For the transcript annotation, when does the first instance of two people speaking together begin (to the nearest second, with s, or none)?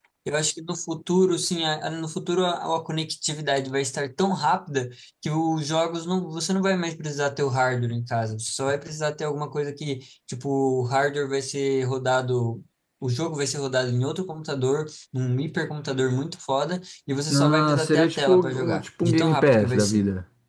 17 s